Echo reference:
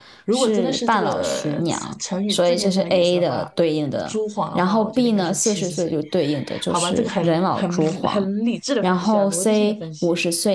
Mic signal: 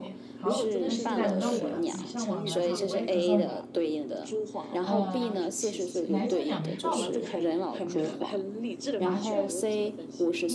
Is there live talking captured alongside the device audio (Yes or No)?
Yes